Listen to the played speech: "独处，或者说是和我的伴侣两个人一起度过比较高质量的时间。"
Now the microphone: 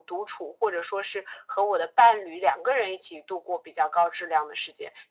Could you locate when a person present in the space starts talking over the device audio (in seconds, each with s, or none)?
none